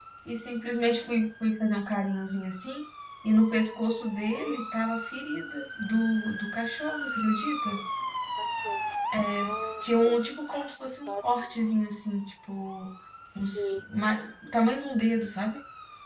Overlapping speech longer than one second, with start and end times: none

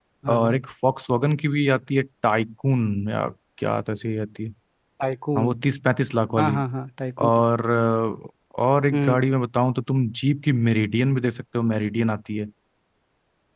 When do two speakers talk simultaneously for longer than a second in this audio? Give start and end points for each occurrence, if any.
none

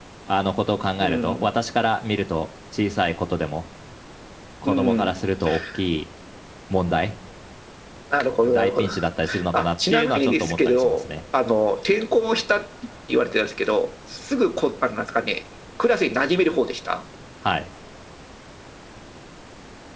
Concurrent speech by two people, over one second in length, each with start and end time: 9.5-11.0

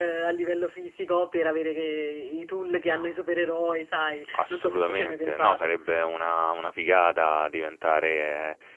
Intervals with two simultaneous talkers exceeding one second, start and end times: 4.3-5.7

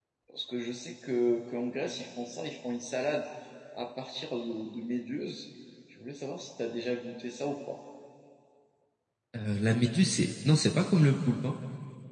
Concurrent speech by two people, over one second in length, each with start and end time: none

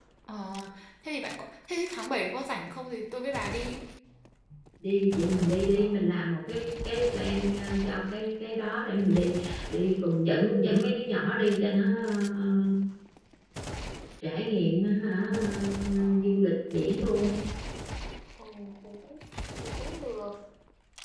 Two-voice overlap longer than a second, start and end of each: none

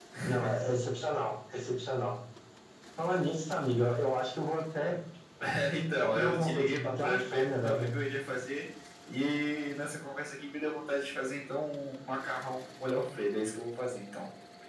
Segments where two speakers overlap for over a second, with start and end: 5.8-7.9

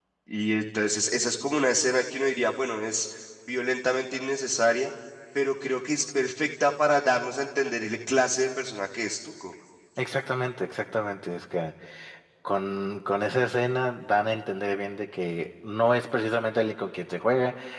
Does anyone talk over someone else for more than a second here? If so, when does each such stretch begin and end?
none

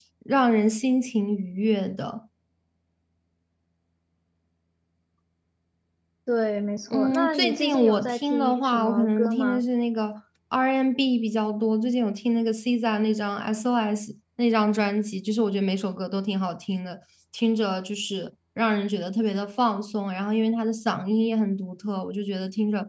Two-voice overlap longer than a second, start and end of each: 6.9-9.7

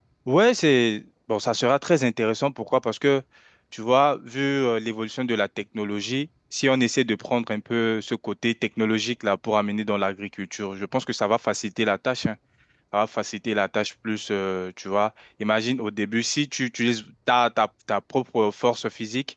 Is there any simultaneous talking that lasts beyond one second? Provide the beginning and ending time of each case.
none

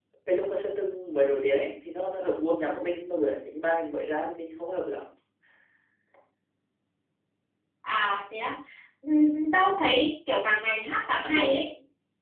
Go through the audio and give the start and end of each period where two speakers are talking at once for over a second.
none

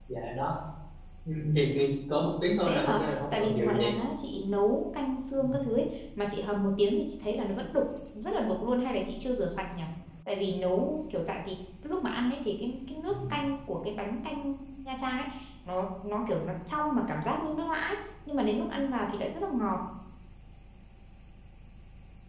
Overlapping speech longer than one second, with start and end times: 2.6-3.9

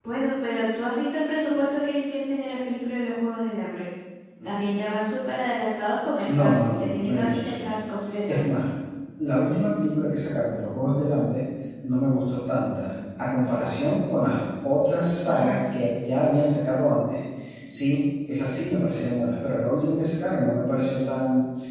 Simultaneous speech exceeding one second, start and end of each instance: 6.3-7.7

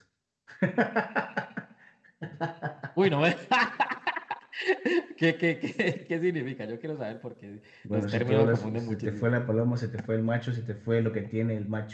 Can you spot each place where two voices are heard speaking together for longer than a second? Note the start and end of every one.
7.9-9.3

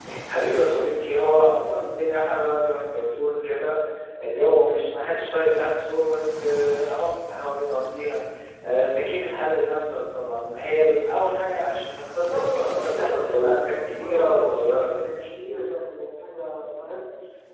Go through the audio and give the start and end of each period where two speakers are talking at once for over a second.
12.2-14.9

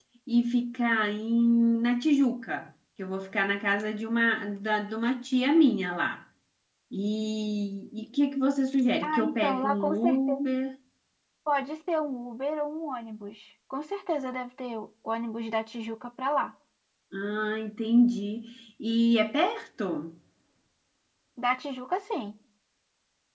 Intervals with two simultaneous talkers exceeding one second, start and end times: 9.0-10.4

